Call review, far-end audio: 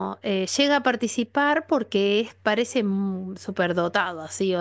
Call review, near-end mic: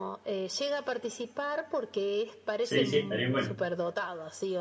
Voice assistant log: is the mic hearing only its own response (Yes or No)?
No